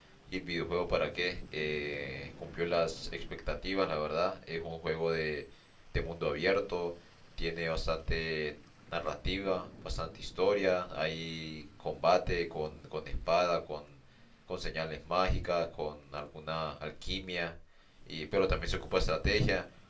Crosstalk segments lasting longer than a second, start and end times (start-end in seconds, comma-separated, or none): none